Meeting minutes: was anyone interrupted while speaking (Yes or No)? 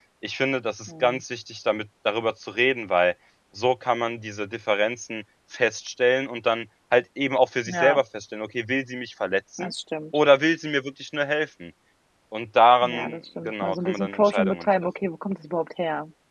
Yes